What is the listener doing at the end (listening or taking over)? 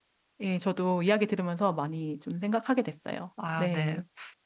taking over